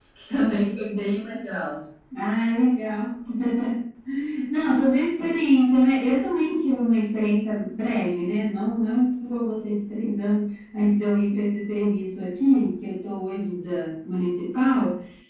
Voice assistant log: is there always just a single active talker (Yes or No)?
Yes